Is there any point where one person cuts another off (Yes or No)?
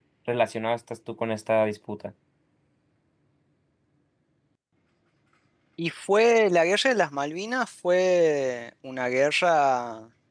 No